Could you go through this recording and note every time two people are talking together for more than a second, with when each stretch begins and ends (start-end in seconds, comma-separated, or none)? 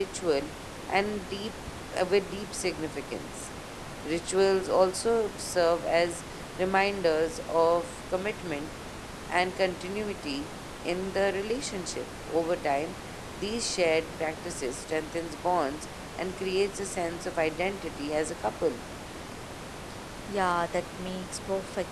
none